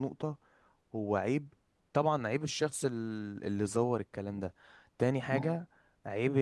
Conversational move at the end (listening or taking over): listening